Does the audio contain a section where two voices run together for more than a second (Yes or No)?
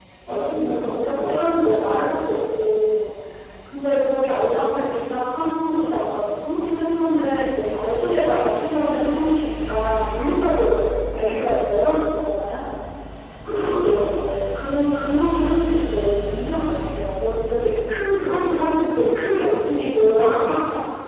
No